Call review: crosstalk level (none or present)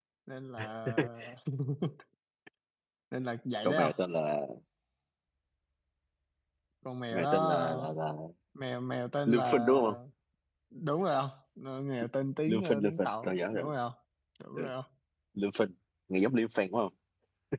present